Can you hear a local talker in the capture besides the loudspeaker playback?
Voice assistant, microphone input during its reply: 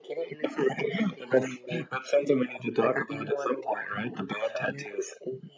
No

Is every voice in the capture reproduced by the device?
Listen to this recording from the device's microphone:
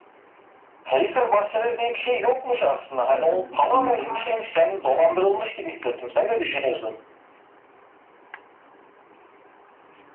No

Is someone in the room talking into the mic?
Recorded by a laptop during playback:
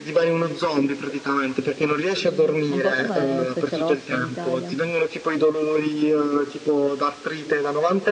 Yes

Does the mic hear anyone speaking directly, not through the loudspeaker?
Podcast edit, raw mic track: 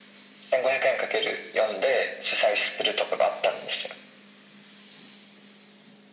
No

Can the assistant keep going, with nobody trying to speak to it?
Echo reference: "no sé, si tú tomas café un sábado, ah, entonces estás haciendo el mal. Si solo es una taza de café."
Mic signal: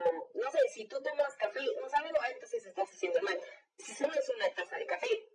Yes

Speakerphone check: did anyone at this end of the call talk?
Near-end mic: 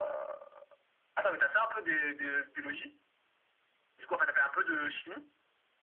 No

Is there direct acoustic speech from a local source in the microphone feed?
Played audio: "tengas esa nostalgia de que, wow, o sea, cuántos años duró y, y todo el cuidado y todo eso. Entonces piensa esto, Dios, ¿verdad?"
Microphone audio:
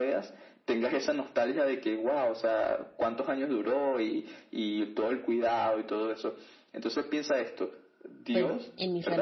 Yes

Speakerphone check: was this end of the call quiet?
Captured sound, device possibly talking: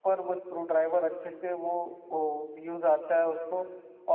No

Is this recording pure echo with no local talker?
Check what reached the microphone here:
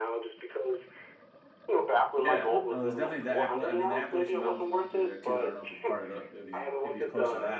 No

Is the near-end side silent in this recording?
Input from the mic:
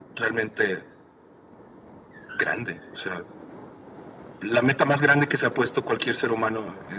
Yes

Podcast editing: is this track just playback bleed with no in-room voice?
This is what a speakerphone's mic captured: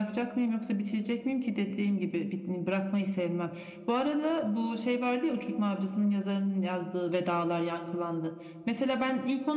Yes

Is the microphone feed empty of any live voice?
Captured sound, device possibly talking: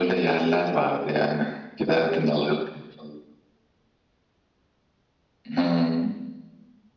Yes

